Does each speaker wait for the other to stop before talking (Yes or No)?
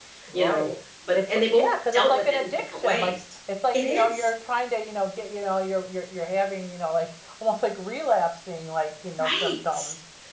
No